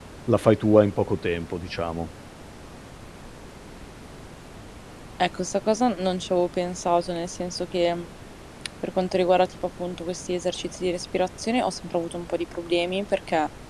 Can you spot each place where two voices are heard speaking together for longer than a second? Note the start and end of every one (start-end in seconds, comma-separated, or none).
none